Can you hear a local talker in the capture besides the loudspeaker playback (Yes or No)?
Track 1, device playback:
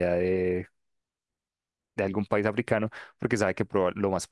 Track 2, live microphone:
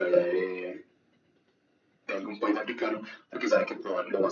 No